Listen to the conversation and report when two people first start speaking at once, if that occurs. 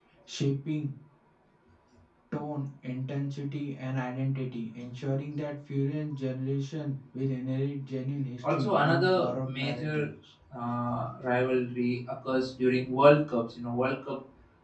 8.4 s

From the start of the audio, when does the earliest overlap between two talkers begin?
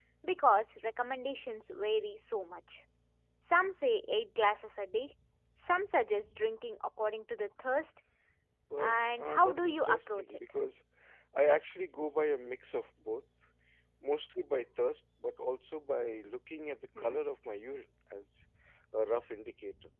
8.8 s

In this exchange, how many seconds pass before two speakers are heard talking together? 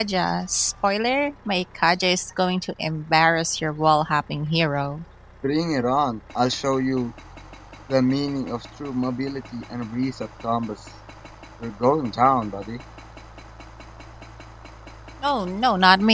none

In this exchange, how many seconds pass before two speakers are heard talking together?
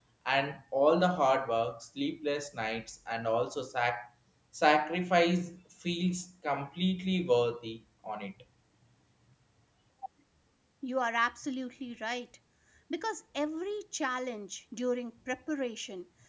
none

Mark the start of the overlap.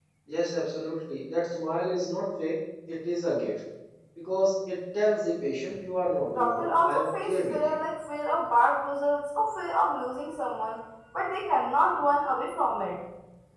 6.4 s

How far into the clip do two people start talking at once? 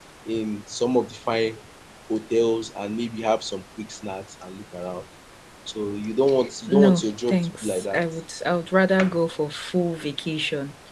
6.7 s

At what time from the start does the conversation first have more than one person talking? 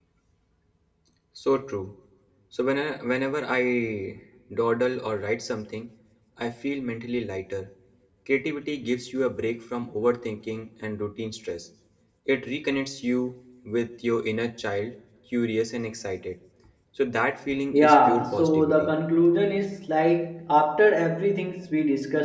17.7 s

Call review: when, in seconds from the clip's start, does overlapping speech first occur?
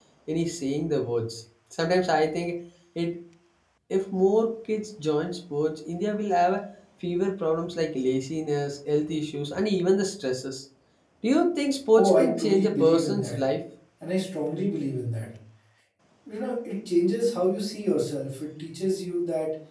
12.0 s

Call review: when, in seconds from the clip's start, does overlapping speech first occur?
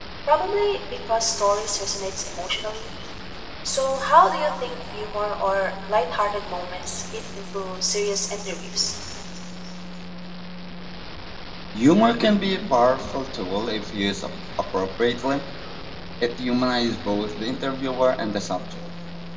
none

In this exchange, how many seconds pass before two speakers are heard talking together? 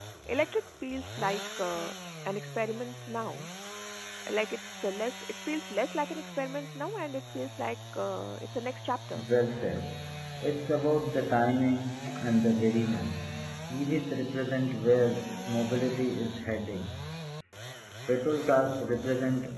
none

